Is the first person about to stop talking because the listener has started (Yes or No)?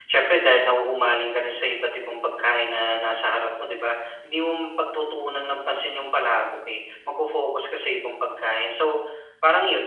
No